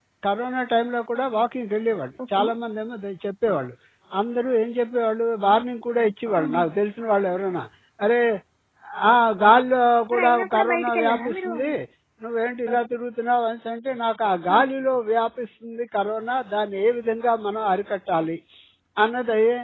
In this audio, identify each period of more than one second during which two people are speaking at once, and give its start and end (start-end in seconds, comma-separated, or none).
10.1-11.5